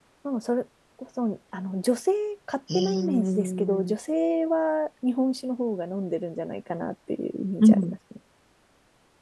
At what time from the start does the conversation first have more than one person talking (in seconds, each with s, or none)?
2.7 s